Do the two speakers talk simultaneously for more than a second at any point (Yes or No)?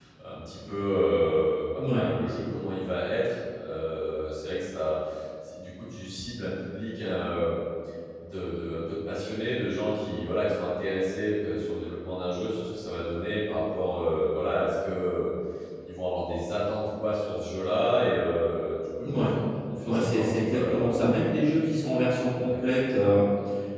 Yes